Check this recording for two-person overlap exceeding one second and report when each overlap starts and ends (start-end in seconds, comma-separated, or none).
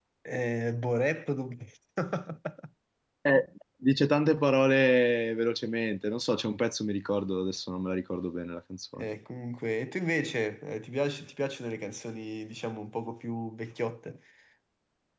none